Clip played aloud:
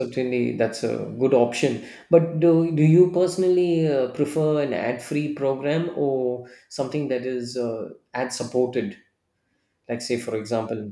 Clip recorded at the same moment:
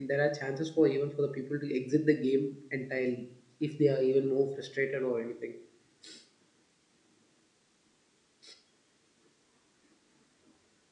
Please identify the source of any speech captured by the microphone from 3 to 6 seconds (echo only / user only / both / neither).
user only